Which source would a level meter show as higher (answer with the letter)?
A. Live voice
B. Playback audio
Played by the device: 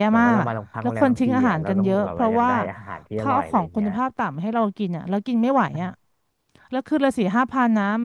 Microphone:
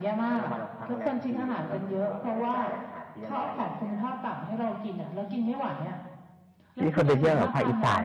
A